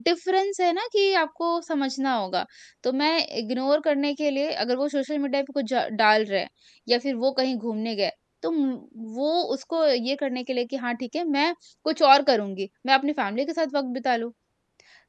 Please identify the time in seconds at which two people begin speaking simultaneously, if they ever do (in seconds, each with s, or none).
none